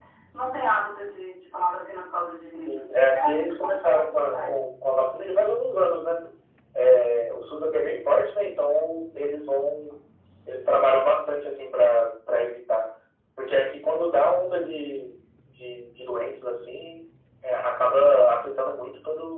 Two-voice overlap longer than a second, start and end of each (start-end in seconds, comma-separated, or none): 2.7-4.6